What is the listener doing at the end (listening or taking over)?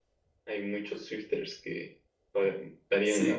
taking over